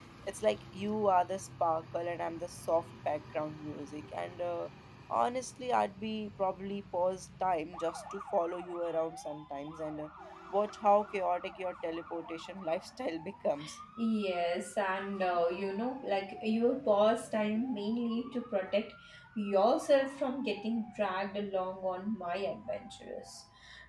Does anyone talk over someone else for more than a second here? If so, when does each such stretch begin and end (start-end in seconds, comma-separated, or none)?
none